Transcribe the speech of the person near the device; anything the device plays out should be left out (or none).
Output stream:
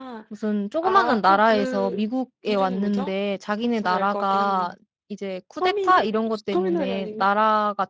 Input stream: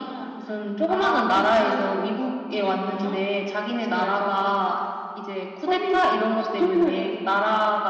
none